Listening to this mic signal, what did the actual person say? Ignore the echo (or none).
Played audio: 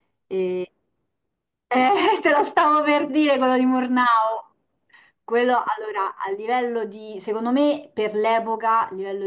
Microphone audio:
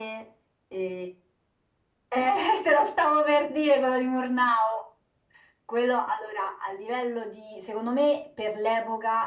none